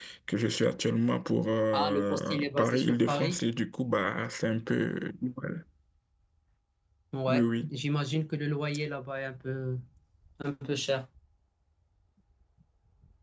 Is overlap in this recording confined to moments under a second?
No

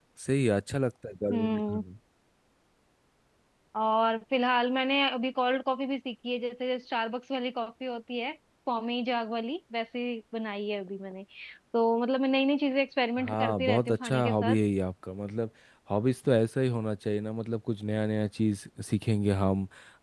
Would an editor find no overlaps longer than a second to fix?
No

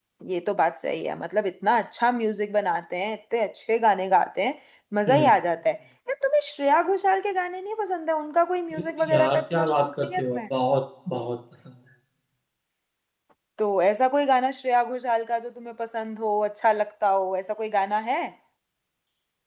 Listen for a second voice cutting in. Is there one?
Yes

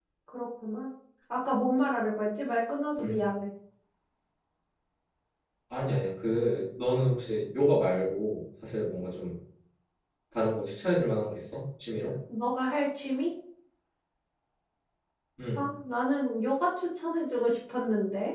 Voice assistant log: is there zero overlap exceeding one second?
Yes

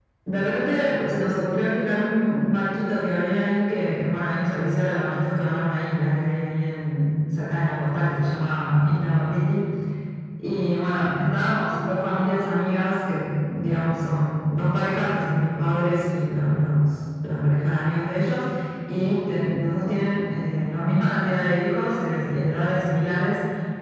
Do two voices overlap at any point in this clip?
No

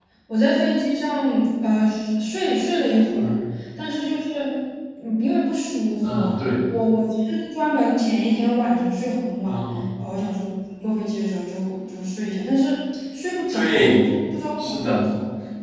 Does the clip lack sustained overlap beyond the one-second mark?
Yes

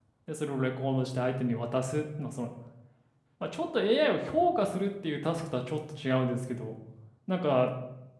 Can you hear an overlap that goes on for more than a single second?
No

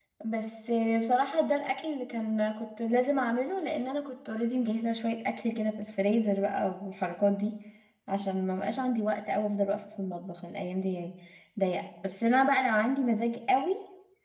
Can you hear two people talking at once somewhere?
No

